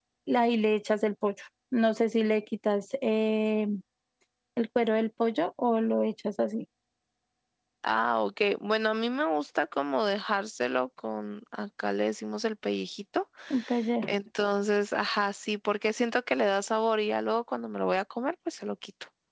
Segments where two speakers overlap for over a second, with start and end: none

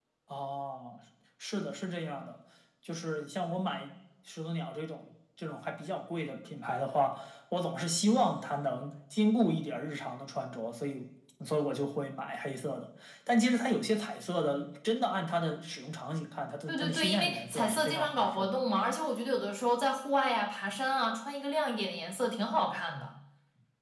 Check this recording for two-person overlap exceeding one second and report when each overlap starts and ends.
16.7-18.5

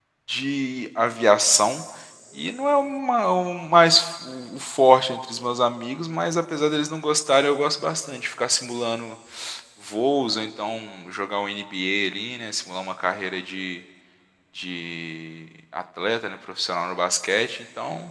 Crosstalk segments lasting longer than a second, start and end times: none

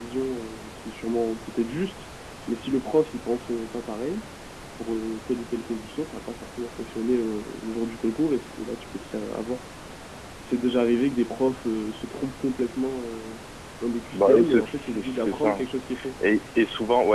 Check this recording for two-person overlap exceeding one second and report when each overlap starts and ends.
14.1-15.6

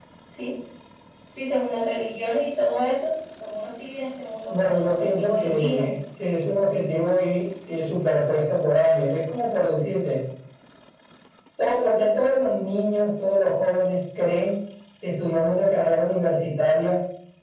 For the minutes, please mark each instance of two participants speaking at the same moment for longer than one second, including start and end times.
4.5-5.9

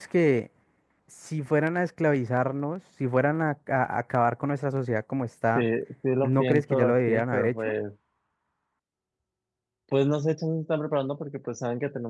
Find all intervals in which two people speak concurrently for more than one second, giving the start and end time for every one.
6.2-7.7

